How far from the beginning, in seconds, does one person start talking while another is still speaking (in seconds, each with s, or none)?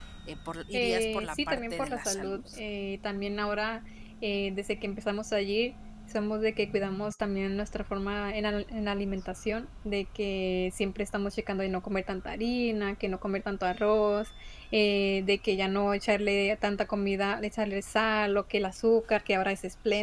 0.7 s